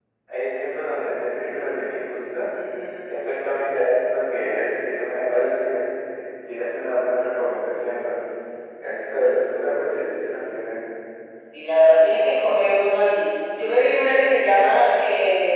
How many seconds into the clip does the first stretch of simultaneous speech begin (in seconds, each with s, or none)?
none